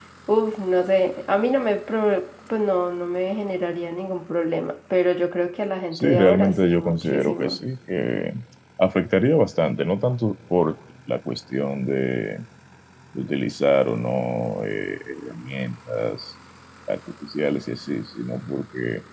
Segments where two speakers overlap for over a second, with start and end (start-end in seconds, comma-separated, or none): 5.9-7.6